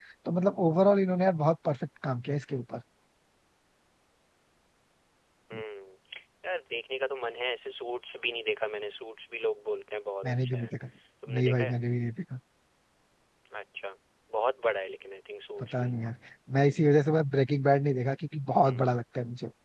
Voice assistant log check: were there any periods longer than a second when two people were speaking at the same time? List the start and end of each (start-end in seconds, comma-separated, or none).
none